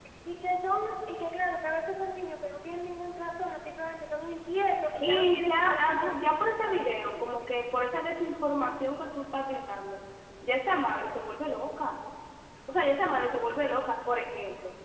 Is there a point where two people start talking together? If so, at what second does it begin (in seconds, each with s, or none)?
5.0 s